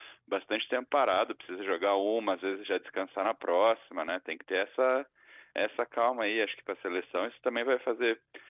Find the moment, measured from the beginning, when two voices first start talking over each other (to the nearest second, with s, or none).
none